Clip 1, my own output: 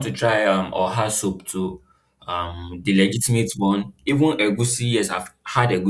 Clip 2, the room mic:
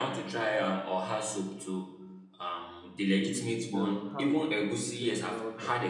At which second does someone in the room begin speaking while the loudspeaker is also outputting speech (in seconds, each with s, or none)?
3.1 s